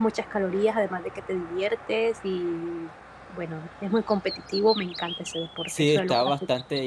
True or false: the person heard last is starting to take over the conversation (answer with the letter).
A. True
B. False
A